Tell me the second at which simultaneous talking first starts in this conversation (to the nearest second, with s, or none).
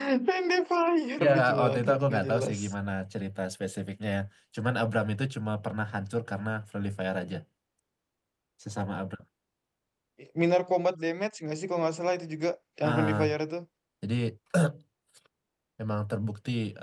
1 s